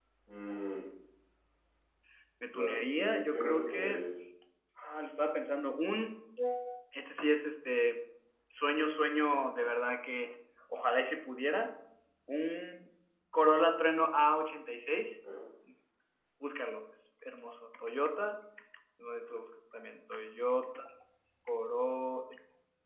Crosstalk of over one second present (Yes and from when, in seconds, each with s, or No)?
Yes, from 2.5 s